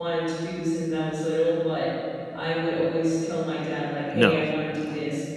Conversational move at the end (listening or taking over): listening